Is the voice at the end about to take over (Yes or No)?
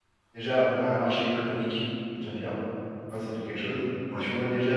No